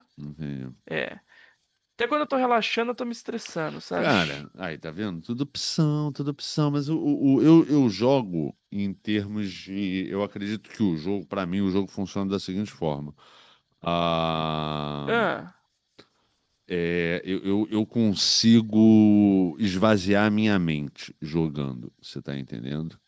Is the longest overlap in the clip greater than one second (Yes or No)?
No